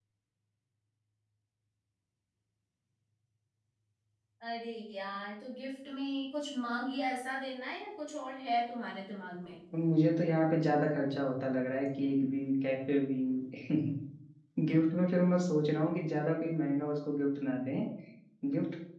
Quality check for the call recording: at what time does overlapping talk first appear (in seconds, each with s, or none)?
none